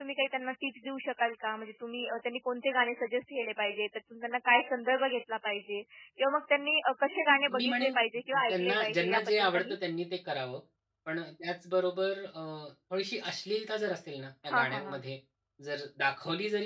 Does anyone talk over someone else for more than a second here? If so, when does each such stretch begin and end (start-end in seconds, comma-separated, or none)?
8.5-9.8